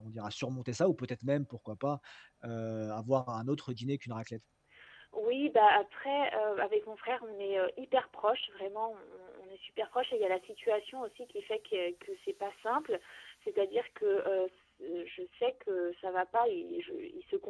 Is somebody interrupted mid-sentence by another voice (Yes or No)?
No